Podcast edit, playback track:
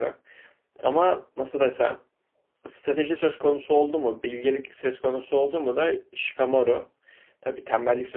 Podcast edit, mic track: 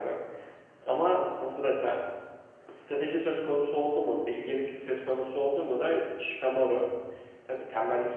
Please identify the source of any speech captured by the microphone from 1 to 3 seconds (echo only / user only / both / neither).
echo only